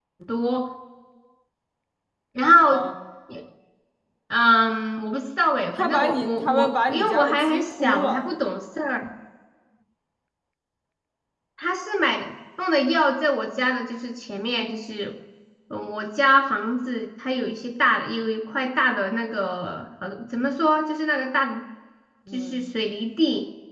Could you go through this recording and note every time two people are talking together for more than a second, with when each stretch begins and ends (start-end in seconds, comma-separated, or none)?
5.7-8.2